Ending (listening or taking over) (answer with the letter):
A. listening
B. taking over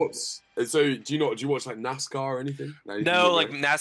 B